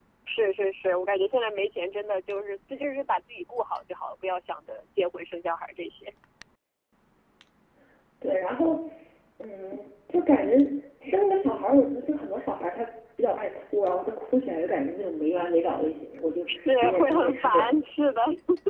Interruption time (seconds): 16.5 s

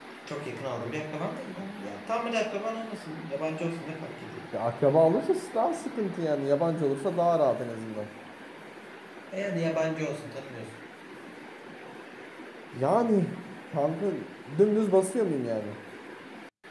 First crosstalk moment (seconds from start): none

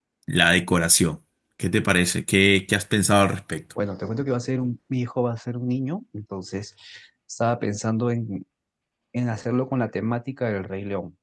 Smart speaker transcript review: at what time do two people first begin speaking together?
none

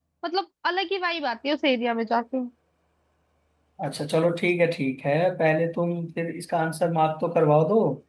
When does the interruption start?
none

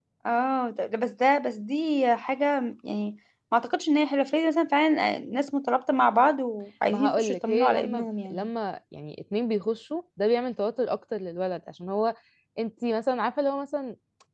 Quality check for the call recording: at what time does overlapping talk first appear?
6.9 s

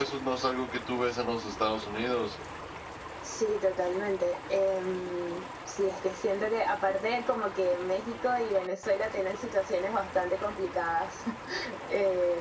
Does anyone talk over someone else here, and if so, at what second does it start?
none

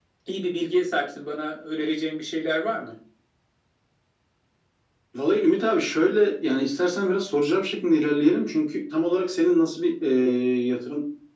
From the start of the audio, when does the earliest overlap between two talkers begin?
none

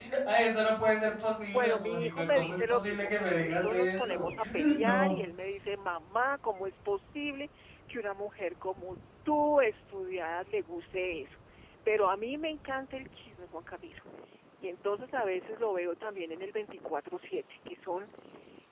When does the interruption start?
1.4 s

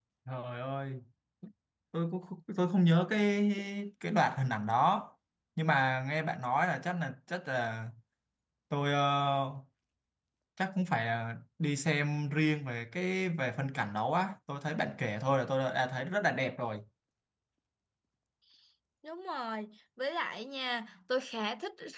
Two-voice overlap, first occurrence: none

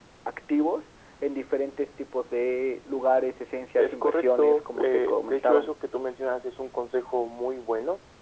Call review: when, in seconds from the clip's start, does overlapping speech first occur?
3.8 s

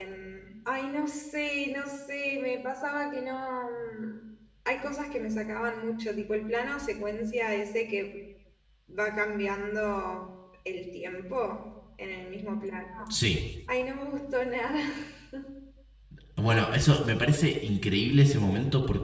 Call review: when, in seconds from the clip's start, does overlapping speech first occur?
none

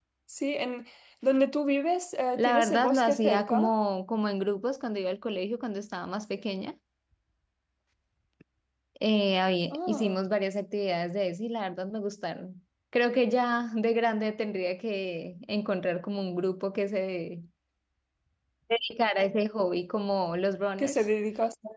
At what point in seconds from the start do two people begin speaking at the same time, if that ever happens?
2.4 s

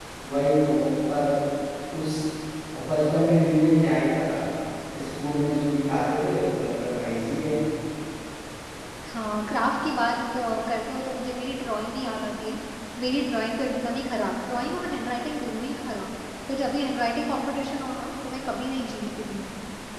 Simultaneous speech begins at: none

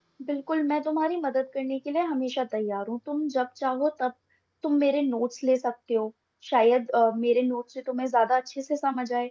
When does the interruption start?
none

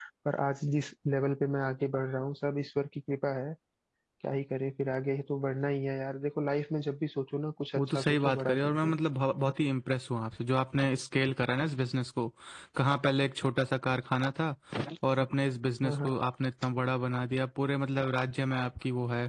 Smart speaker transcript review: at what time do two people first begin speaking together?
7.8 s

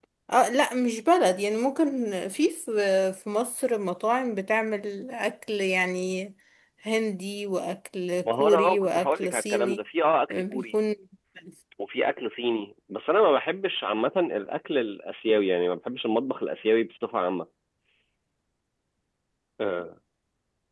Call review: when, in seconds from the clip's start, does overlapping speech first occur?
8.2 s

